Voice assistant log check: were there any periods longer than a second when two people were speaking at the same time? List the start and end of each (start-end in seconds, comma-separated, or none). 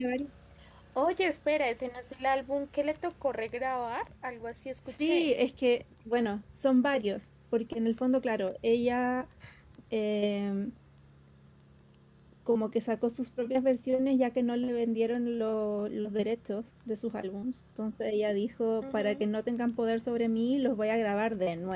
none